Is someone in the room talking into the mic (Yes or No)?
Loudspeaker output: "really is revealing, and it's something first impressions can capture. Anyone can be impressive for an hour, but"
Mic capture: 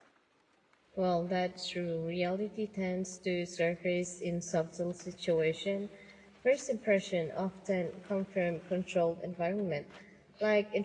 Yes